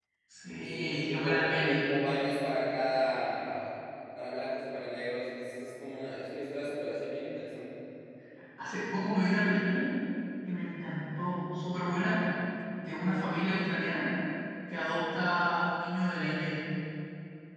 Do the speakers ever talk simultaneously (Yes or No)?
Yes